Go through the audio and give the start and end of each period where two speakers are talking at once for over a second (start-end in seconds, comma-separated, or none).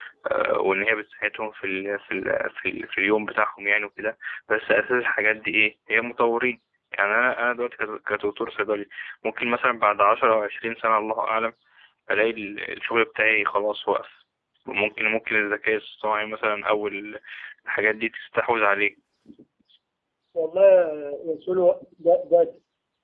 none